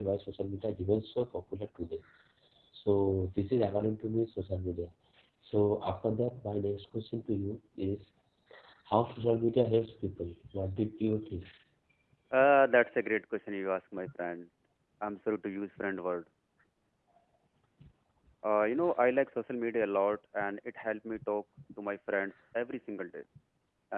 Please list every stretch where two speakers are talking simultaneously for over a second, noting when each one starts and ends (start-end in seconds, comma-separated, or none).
none